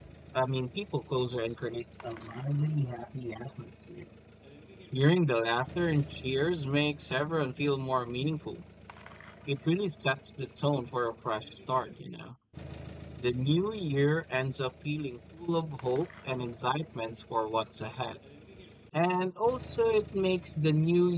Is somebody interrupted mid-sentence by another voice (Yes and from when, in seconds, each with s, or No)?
No